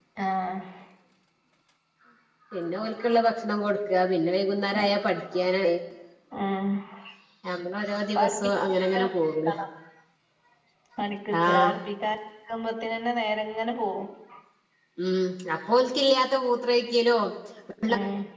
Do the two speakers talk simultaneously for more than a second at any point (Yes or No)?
No